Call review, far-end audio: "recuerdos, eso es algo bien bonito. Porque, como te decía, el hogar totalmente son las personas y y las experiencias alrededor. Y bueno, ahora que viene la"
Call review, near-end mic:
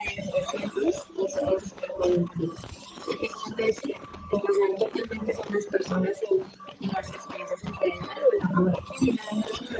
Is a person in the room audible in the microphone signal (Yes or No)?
No